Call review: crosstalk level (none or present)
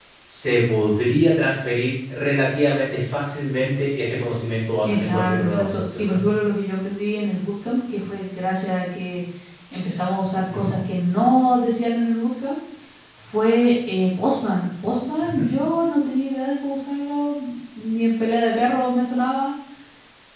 present